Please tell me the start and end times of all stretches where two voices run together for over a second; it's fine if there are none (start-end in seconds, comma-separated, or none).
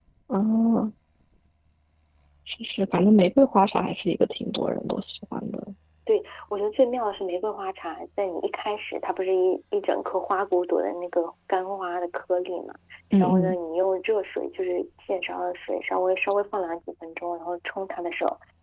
none